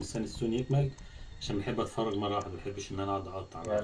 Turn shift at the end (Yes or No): Yes